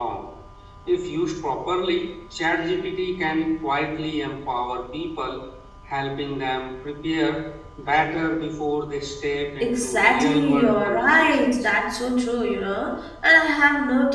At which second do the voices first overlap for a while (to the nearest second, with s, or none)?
10 s